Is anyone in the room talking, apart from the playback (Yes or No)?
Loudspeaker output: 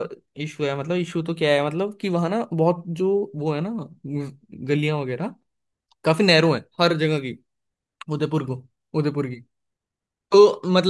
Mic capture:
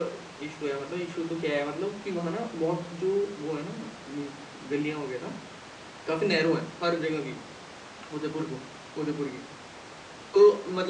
No